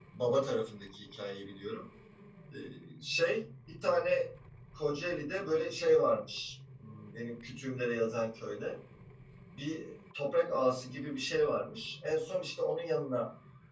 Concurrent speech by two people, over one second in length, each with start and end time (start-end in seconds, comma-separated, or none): none